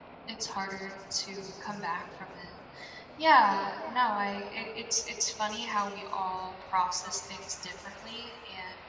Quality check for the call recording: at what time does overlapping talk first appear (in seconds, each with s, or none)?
none